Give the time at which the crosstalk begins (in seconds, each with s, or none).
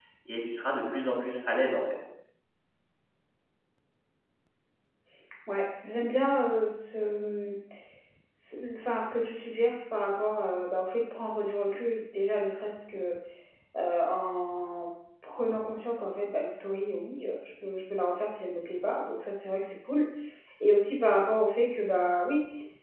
none